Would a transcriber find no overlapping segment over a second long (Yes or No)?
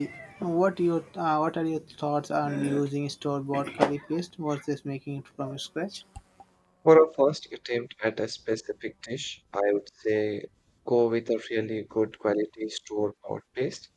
Yes